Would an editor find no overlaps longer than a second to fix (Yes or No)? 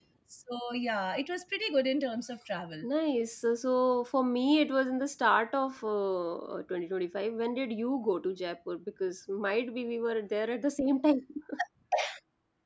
Yes